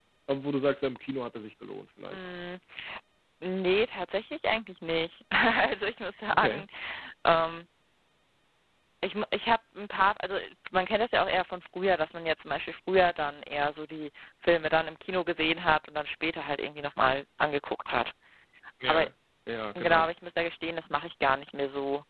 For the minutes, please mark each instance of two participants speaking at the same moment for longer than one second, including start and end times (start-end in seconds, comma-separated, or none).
none